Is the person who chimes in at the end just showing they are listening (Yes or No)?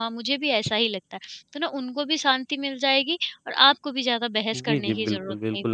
No